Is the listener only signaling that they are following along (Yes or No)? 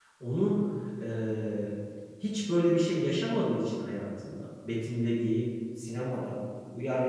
Yes